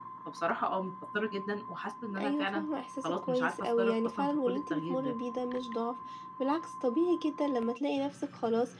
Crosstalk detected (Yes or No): Yes